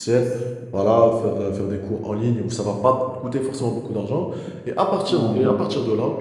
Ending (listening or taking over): listening